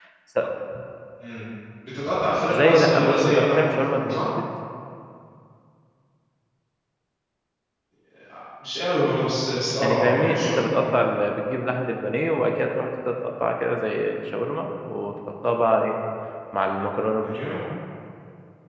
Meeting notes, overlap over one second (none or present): present